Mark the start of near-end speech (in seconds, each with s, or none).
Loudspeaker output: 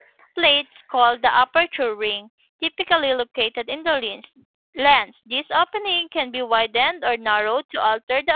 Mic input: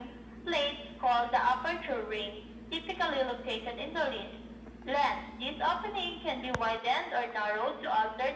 none